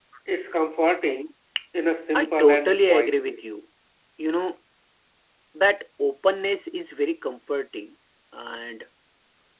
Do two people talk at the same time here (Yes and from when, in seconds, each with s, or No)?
Yes, from 2.2 s